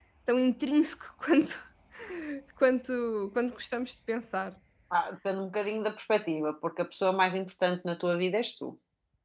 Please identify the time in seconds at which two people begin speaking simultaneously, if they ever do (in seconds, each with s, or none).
none